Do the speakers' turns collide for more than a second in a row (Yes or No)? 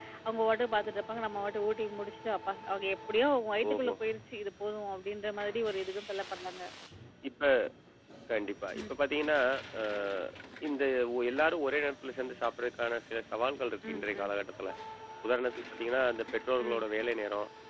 No